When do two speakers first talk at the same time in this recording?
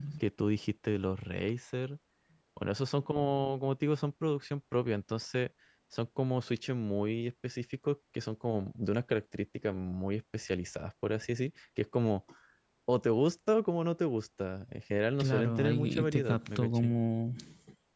15.2 s

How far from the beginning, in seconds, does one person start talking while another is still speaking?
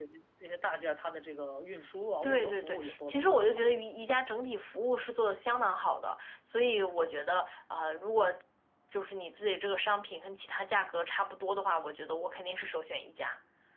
2.2 s

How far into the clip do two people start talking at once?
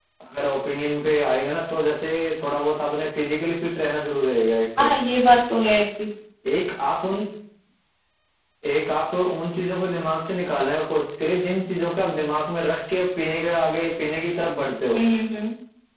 none

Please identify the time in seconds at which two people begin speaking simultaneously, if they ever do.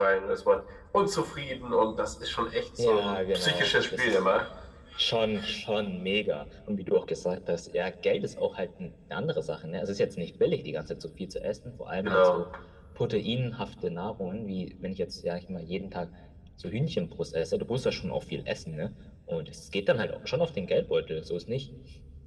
2.8 s

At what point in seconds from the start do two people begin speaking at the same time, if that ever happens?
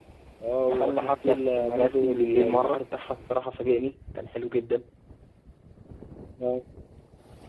0.7 s

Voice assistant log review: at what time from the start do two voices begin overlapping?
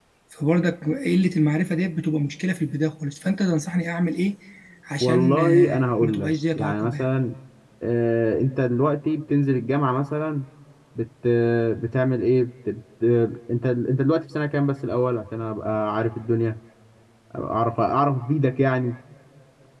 5.0 s

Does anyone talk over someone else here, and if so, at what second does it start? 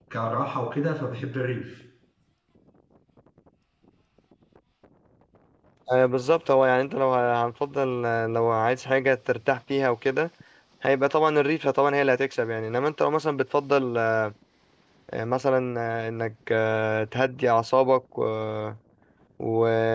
none

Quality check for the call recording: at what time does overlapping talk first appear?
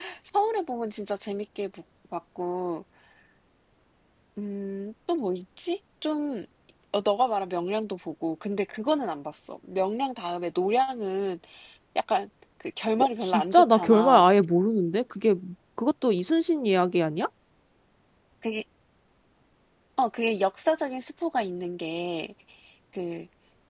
13.0 s

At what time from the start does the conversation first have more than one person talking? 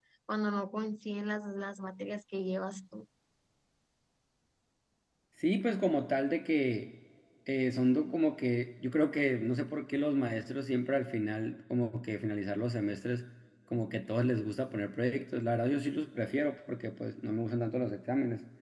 none

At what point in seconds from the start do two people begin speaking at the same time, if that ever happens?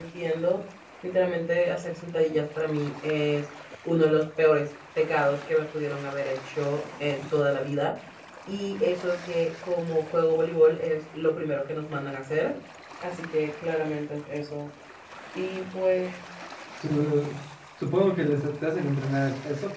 none

